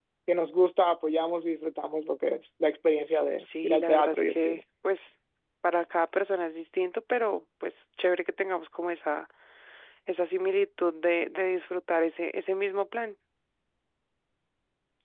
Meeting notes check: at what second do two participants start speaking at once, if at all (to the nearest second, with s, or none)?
3 s